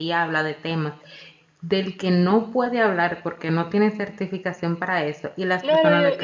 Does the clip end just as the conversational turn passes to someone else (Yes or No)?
Yes